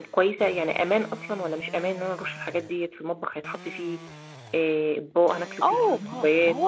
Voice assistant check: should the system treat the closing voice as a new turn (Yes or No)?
Yes